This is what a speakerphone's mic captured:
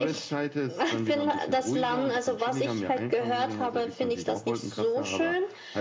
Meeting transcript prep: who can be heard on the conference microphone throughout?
echo only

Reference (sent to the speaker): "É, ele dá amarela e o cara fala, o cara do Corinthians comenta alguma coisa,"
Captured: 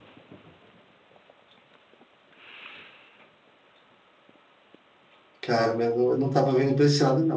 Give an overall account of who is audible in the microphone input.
user only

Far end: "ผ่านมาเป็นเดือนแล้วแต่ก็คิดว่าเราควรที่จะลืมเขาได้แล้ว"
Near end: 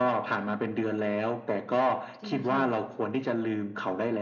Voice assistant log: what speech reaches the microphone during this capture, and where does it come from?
both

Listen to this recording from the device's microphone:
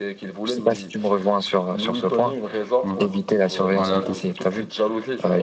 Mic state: both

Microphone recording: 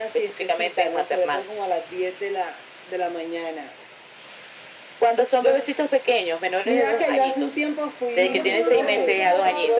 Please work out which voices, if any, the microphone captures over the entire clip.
both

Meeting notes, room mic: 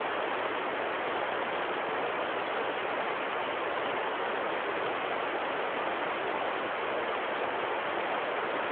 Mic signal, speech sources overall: neither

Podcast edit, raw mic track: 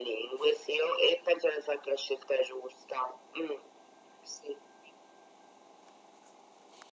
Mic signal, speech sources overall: echo only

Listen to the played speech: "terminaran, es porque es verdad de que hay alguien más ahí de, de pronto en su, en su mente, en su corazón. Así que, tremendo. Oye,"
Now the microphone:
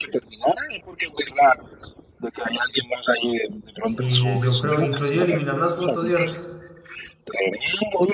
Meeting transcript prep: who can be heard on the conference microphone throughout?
both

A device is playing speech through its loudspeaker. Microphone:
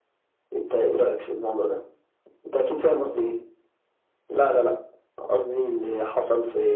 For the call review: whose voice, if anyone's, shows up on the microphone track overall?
echo only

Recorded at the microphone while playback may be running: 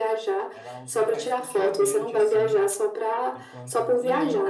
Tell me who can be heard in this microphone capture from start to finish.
both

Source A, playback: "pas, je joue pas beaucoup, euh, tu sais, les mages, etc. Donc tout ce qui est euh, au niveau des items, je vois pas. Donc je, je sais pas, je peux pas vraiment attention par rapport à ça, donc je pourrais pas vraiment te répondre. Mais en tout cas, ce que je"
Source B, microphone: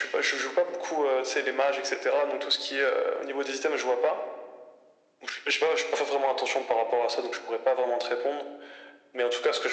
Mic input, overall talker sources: echo only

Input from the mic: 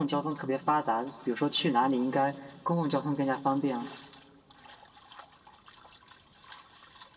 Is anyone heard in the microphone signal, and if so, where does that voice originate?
echo only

